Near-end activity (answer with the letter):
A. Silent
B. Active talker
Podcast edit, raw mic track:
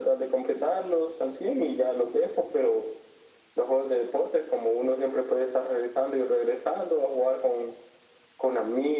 A